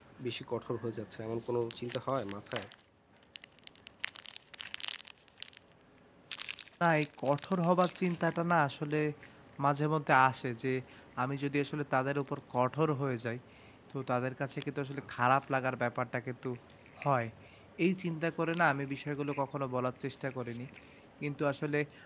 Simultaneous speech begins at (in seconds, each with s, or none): none